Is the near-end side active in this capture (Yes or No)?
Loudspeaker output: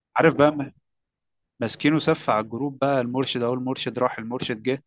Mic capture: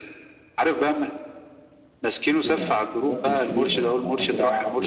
Yes